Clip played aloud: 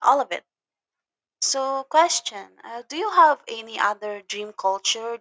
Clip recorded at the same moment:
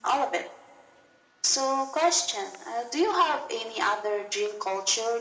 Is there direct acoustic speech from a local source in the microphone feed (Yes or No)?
No